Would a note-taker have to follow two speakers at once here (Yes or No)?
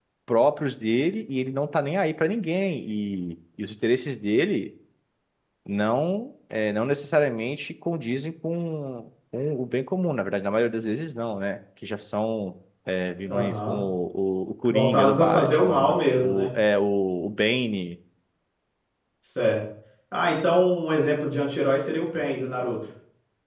Yes